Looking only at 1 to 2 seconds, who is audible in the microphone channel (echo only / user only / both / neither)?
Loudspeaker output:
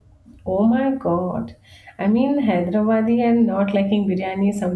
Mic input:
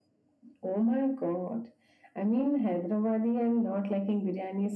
echo only